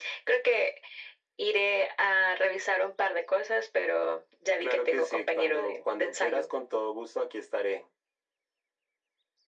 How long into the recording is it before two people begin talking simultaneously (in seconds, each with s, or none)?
4.6 s